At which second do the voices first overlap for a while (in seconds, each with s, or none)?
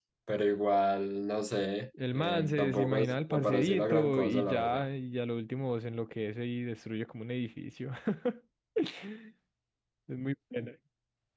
1.9 s